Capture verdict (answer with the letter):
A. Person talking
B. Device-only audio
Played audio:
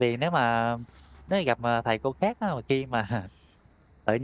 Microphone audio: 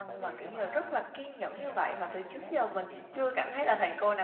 A